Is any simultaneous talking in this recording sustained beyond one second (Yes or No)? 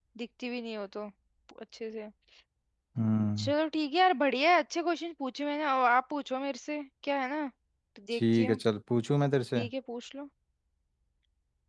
No